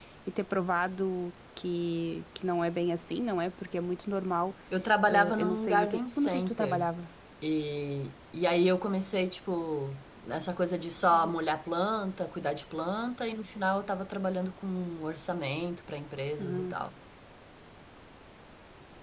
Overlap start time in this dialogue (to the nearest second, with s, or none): 5 s